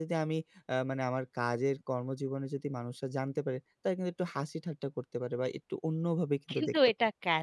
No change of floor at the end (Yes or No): No